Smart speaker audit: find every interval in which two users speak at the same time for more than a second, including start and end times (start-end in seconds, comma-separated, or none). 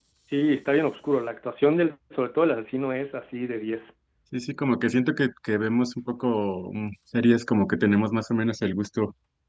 none